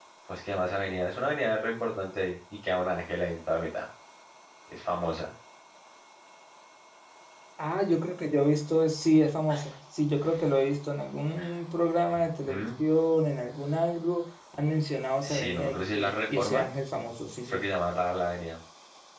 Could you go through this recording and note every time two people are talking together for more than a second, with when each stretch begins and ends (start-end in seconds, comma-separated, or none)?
15.3-16.7